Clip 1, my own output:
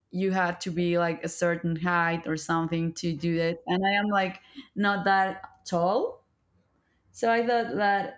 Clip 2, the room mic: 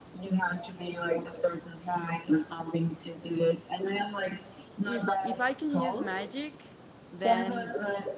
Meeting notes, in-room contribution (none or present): present